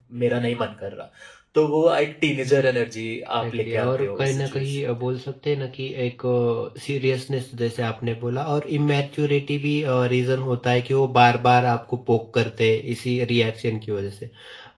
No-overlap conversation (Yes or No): No